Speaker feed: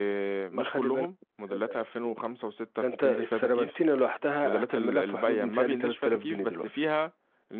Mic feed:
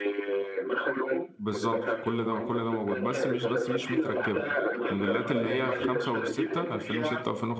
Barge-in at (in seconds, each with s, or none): 1.4 s